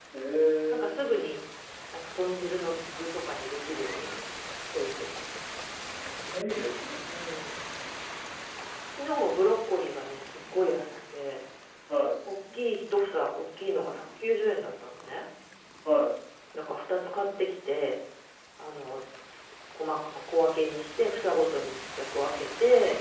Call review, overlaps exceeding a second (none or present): none